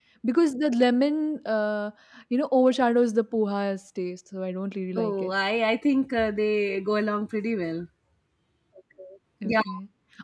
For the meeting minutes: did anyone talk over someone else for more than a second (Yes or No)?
No